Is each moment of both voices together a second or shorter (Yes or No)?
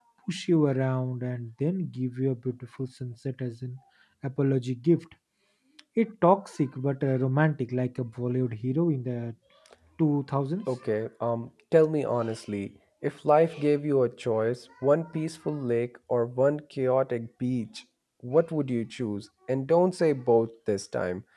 Yes